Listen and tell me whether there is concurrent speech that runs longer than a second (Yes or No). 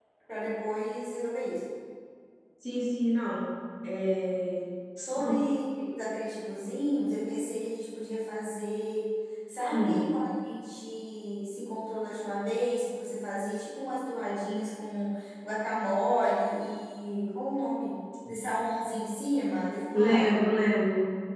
No